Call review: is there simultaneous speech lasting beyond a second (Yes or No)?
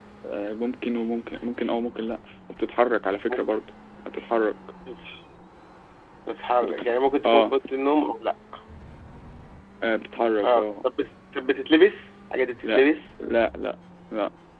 No